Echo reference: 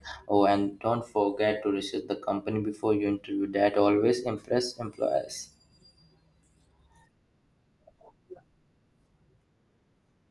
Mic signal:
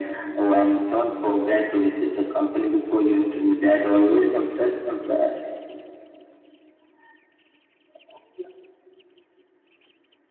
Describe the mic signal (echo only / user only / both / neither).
echo only